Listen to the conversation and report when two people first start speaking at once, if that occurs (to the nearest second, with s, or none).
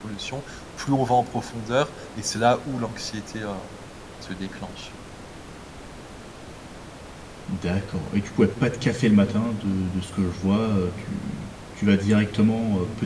none